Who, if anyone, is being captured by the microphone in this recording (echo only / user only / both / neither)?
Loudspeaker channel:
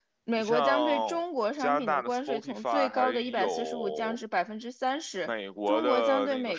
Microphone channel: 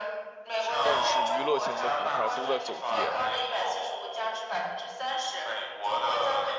both